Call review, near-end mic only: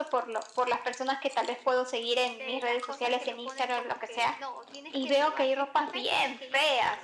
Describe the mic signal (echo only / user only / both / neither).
both